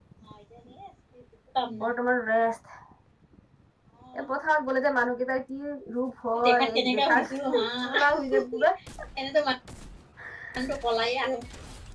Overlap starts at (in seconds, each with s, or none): 6.4 s